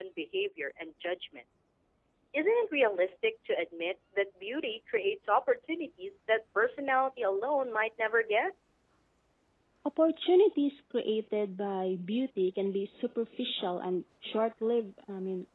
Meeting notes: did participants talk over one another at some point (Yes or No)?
No